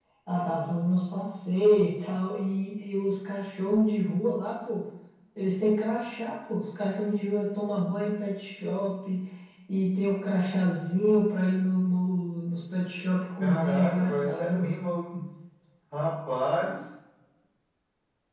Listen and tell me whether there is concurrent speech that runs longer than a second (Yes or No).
Yes